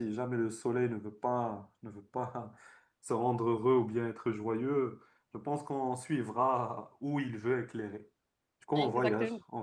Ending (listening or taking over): listening